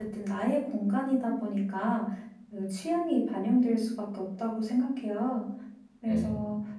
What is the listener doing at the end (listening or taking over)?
listening